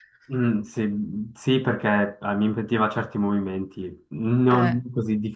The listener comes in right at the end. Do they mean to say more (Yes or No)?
No